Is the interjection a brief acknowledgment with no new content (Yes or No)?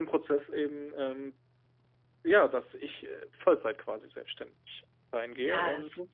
No